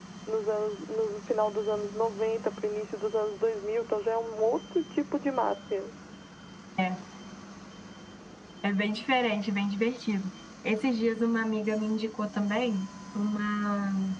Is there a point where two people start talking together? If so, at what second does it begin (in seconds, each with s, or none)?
none